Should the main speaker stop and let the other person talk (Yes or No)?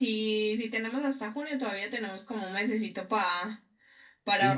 Yes